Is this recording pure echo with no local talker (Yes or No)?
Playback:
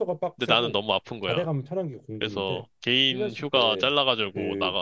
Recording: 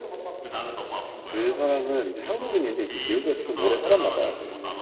No